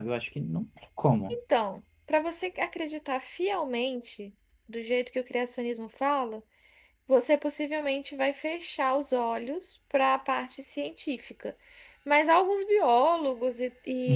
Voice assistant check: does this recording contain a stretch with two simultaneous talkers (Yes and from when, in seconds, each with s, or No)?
No